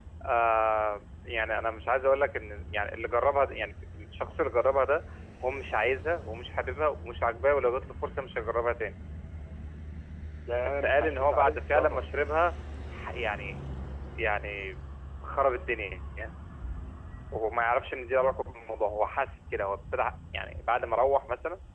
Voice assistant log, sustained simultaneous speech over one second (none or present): present